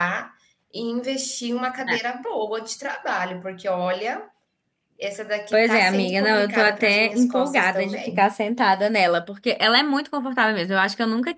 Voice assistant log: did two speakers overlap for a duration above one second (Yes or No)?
Yes